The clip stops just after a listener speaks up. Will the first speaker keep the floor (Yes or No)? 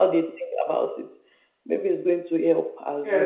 No